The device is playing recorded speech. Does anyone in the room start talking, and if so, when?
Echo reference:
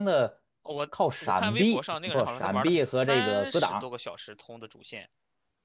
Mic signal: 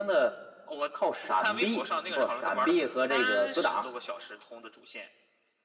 none

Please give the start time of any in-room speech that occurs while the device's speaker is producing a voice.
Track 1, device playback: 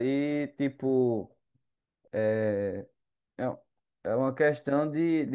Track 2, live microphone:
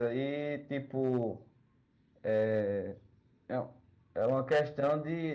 none

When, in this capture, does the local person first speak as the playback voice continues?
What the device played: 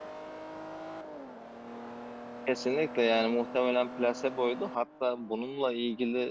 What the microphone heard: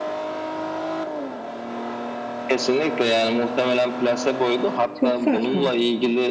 5.0 s

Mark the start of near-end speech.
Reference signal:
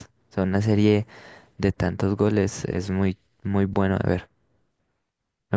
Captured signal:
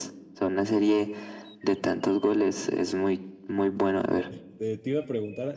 4.1 s

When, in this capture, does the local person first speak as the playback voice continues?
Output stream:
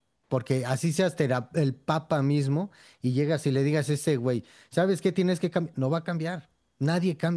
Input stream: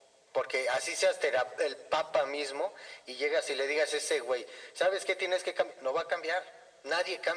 none

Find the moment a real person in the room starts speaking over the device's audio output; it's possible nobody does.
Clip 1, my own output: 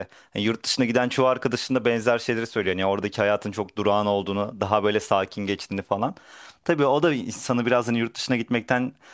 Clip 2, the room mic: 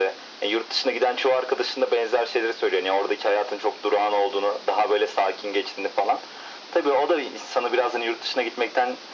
none

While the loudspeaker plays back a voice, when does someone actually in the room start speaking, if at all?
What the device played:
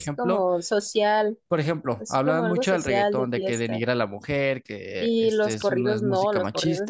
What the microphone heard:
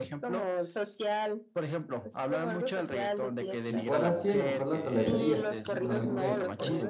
3.6 s

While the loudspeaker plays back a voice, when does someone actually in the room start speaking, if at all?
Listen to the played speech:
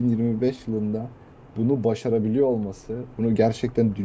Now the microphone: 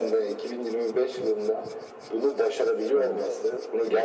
2.9 s

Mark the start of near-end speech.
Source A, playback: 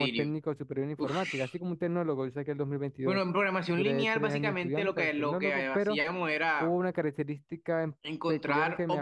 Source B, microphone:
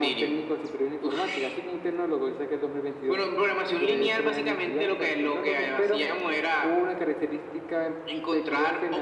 none

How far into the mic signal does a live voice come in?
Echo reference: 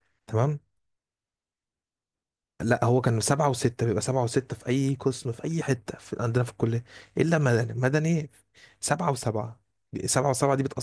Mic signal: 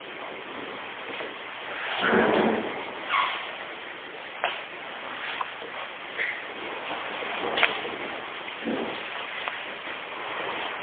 none

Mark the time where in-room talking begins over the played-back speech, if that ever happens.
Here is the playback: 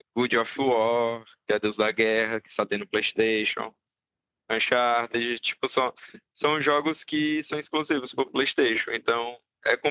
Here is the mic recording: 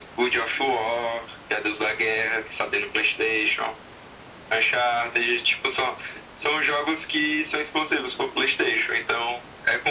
none

